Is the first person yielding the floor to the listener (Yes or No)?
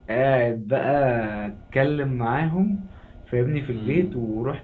No